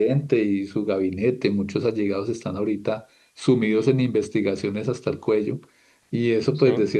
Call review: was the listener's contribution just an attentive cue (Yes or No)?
Yes